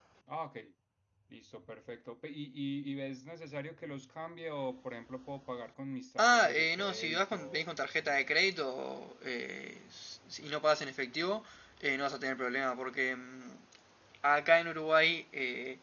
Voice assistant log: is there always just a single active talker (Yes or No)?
No